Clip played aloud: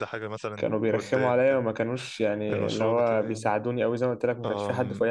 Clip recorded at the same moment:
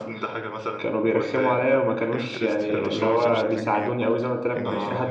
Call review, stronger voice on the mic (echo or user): echo